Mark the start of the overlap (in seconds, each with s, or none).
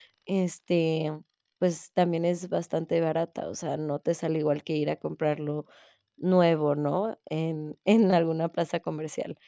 none